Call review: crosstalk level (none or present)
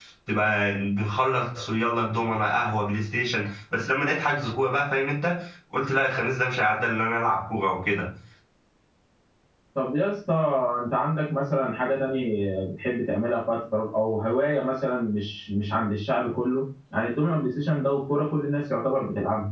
none